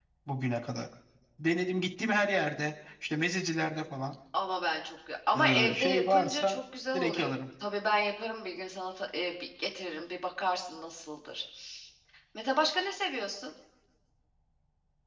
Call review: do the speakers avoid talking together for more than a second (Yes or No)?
No